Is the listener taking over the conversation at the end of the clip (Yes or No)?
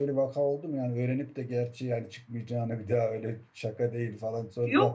Yes